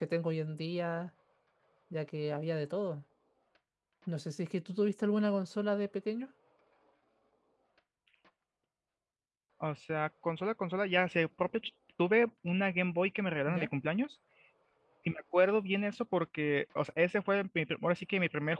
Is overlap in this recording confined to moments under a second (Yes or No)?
Yes